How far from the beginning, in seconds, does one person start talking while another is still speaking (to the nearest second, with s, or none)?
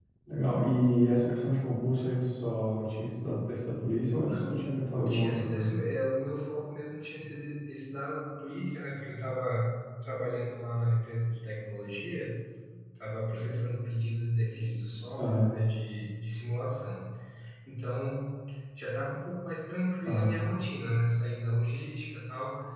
4 s